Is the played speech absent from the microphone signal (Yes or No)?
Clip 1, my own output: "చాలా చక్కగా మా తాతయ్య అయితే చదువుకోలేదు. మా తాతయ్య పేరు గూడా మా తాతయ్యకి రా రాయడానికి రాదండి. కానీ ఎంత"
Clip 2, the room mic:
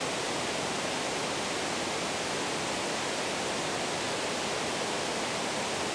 Yes